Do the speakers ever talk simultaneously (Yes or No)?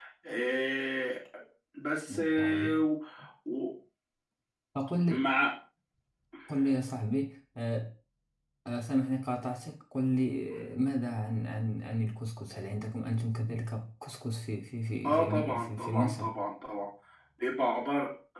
Yes